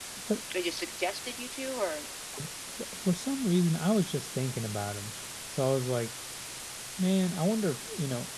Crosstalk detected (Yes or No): No